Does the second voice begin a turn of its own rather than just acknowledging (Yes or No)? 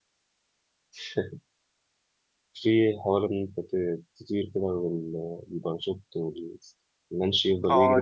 Yes